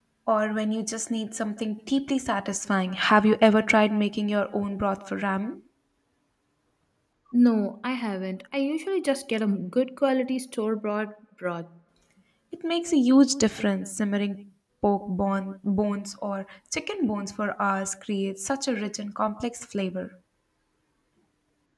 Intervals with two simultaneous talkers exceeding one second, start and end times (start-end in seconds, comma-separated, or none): none